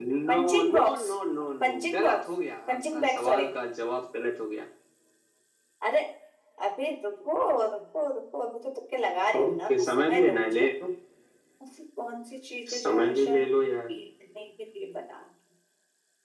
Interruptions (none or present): present